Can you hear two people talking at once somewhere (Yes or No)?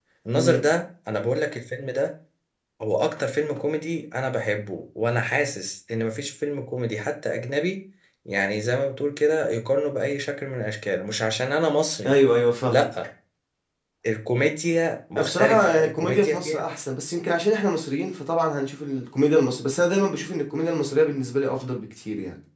Yes